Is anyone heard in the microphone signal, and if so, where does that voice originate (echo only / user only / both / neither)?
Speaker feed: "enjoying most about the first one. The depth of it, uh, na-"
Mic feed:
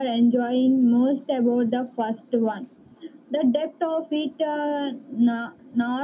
echo only